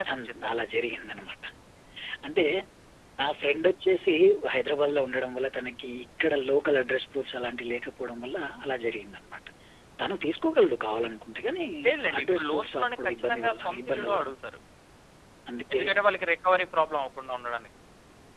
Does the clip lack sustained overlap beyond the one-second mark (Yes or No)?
No